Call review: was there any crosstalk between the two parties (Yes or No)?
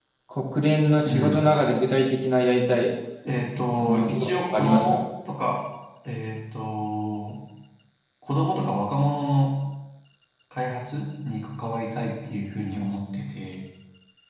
Yes